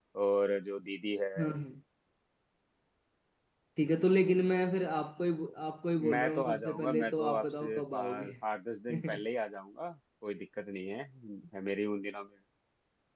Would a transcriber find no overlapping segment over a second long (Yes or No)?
No